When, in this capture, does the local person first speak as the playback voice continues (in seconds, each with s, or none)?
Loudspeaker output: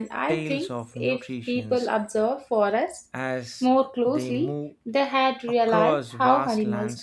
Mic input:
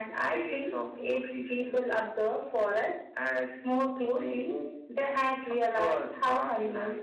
none